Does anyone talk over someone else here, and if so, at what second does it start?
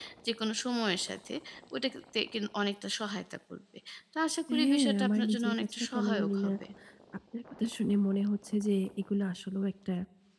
4.5 s

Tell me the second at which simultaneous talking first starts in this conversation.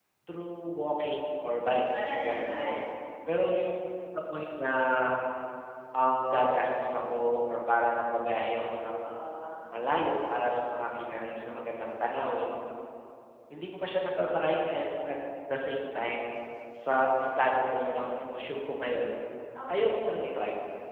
1.3 s

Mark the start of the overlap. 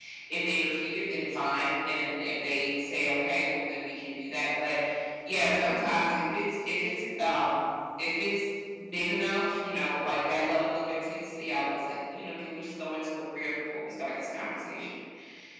none

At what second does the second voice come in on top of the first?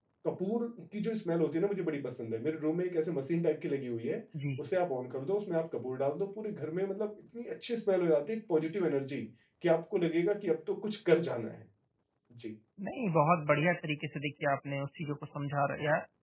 none

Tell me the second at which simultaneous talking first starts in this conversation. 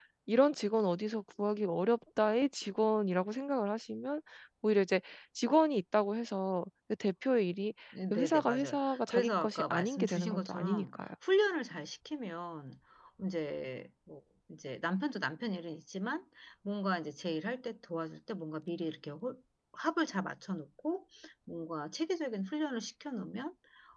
8.1 s

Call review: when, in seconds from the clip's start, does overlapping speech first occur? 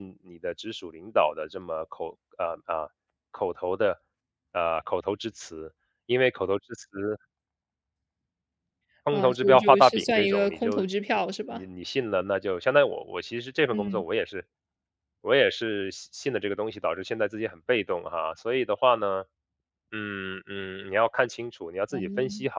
9.1 s

